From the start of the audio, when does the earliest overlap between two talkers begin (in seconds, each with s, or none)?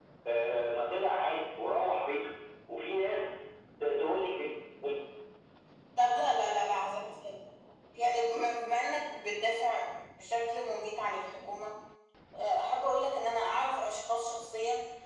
none